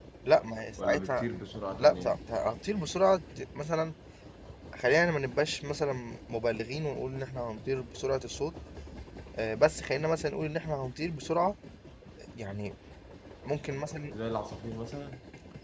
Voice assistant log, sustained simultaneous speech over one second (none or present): none